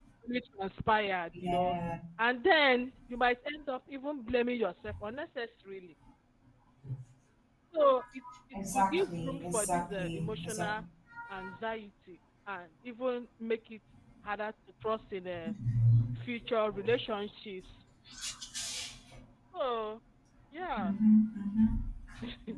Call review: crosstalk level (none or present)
present